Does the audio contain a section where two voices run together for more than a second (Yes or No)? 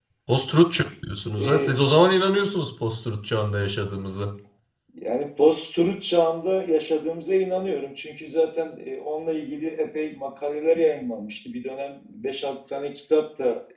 No